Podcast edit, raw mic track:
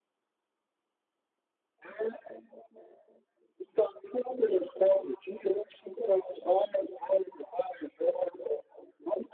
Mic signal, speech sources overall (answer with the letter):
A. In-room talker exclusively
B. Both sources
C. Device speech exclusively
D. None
C